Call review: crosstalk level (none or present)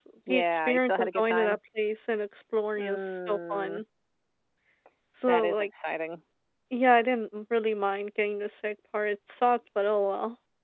present